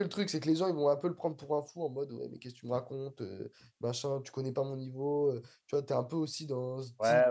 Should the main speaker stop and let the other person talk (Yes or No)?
Yes